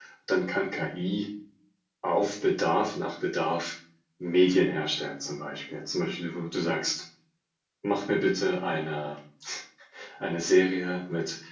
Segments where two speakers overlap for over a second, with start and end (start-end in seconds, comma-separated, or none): none